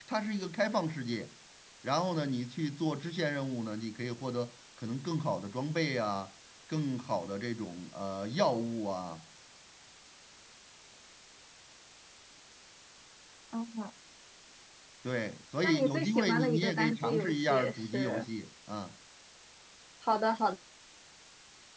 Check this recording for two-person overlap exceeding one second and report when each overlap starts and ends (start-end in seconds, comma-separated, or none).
15.6-18.3